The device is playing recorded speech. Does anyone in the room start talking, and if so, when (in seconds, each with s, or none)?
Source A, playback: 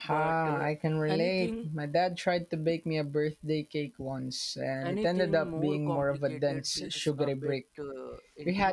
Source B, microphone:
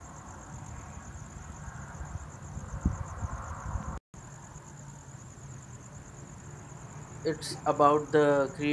7.2 s